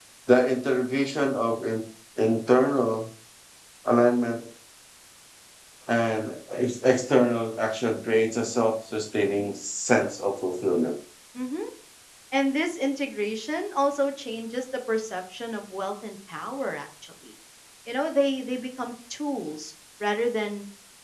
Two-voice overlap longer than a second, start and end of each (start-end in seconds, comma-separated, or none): none